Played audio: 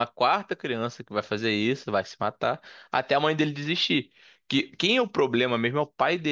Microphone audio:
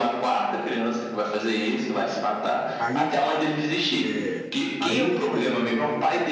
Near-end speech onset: 3 s

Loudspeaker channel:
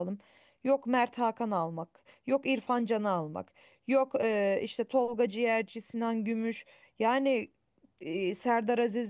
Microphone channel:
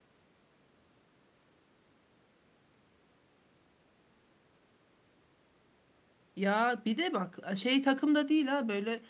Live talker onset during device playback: 6 s

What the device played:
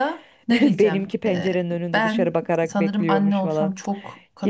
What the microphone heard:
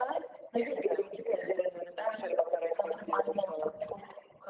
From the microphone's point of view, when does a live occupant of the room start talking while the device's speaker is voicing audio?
none

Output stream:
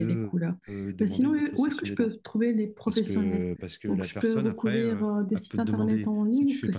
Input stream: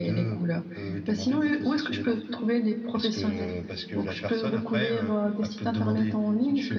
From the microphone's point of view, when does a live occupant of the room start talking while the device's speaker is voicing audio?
none

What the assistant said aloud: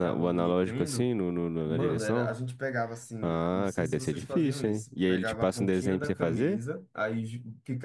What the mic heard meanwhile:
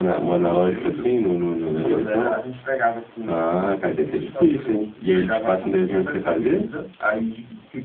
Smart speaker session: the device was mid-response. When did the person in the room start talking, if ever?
none

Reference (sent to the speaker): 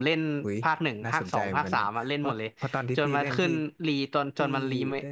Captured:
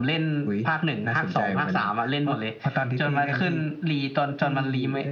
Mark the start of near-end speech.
none

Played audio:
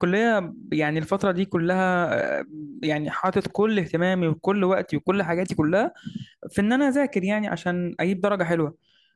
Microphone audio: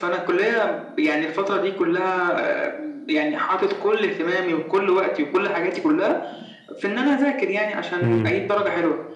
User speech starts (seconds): 8 s

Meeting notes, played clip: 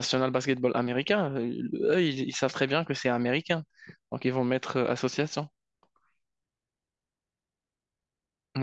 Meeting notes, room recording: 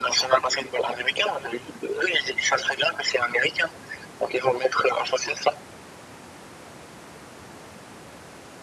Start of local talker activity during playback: none

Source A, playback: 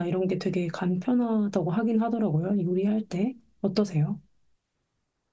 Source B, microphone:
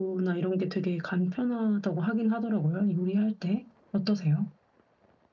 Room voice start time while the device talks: none

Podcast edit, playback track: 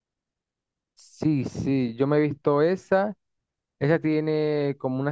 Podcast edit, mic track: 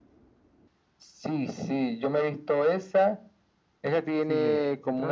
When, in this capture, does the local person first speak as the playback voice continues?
4 s

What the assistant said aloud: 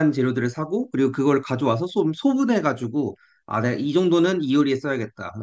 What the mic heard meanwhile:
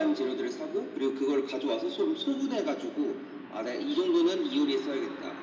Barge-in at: none

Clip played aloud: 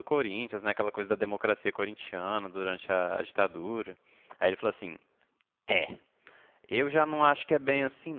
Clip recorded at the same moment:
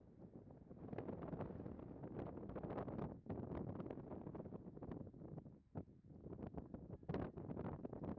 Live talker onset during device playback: none

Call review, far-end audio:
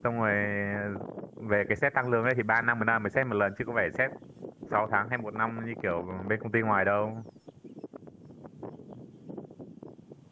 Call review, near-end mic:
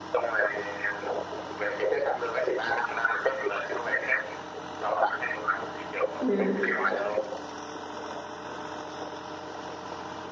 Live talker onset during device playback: 6 s

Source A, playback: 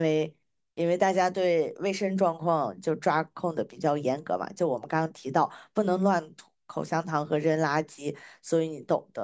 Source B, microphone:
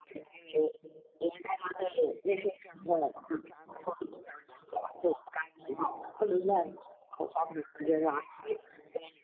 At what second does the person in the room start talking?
none

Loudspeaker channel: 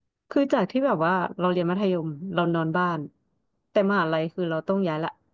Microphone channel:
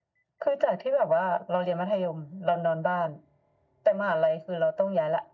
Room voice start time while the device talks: none

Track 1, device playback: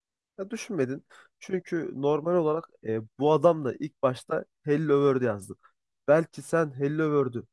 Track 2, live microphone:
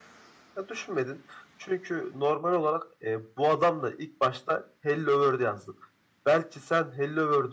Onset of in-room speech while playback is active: none

